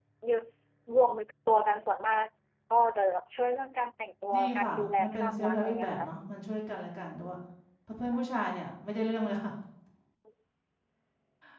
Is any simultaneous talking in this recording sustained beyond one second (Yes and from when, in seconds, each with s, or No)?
Yes, from 4.3 s